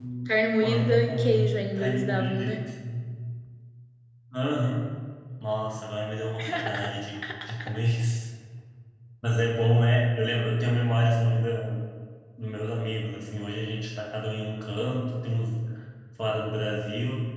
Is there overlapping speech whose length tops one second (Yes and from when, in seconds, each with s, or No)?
Yes, from 0.6 s